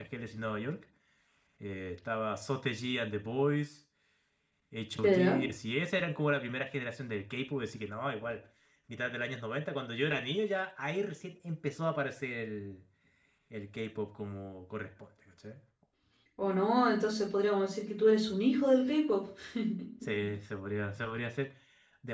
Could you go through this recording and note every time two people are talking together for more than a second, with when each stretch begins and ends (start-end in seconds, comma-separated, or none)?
none